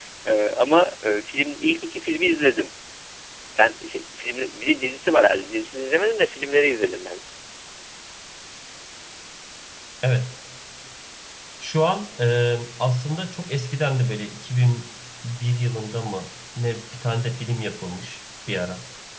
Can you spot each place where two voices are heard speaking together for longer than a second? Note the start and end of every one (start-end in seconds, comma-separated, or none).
none